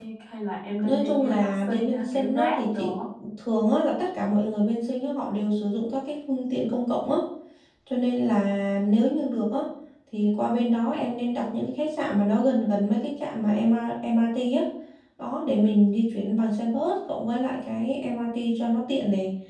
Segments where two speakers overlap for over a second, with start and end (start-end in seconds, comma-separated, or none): 0.8-2.9